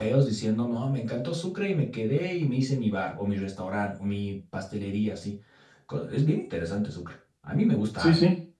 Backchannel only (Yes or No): No